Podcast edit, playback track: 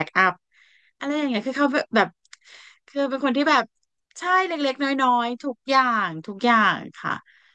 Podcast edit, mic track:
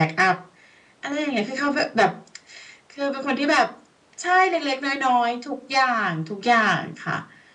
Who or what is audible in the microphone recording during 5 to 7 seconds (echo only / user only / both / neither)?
echo only